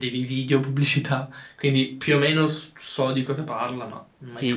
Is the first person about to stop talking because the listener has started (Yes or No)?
Yes